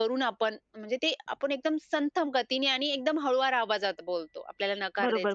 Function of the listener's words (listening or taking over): taking over